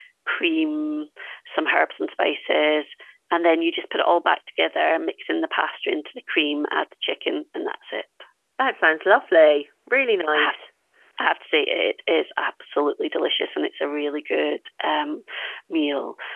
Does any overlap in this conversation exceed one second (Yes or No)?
No